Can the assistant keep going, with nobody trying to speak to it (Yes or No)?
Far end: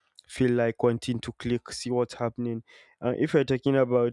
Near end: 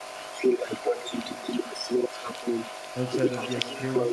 No